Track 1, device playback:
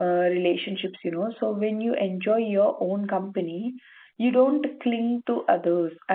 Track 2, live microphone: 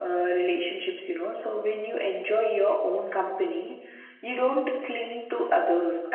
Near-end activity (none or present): none